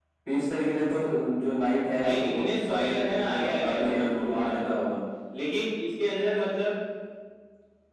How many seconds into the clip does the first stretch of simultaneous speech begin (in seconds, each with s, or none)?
1.9 s